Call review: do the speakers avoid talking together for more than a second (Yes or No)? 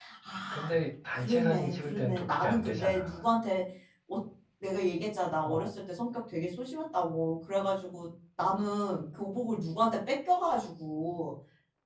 No